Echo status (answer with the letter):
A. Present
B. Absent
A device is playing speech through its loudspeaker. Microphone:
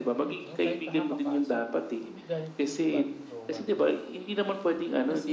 A